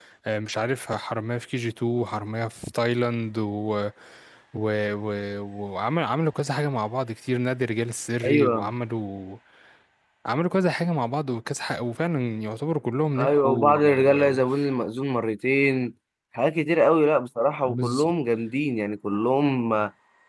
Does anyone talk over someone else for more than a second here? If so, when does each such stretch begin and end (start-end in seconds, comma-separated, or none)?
13.2-14.4